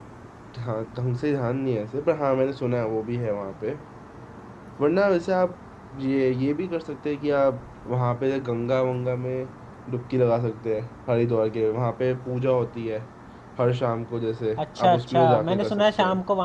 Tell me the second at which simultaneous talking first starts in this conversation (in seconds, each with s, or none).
14.6 s